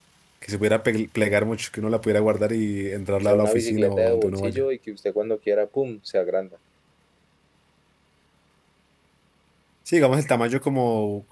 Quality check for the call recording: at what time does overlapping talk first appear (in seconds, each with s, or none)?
3.2 s